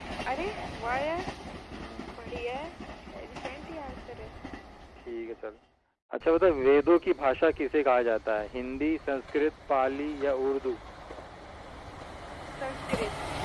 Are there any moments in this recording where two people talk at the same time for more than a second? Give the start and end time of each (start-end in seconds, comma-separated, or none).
none